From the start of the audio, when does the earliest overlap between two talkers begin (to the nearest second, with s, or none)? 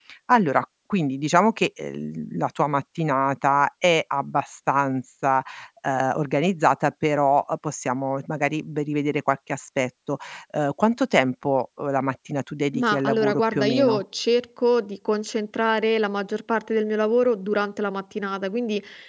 13 s